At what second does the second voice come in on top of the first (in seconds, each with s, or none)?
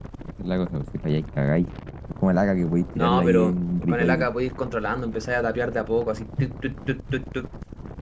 3.0 s